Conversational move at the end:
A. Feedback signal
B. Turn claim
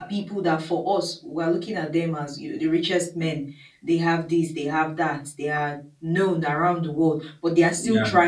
A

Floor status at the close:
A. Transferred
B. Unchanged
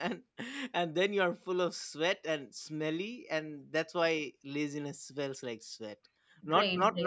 B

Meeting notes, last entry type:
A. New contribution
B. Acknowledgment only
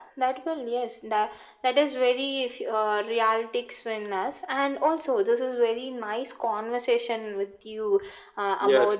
B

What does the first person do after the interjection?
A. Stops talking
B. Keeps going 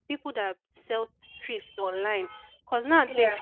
B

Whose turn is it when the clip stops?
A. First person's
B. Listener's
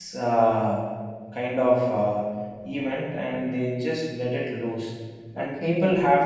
A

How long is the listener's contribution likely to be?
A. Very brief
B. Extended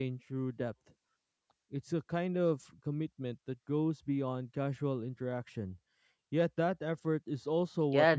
B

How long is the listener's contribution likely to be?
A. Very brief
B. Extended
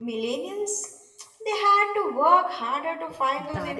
B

